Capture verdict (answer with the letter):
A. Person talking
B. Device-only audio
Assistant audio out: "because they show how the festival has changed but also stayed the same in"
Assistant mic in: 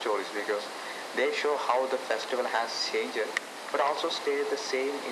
B